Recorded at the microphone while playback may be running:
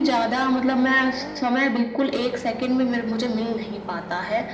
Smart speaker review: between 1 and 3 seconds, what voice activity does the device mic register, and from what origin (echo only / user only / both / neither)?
echo only